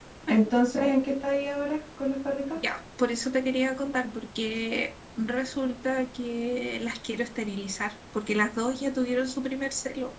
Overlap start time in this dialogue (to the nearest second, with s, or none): none